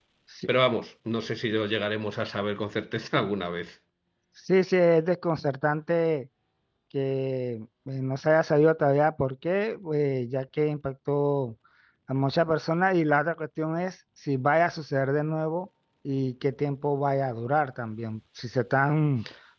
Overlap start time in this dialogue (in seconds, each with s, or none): none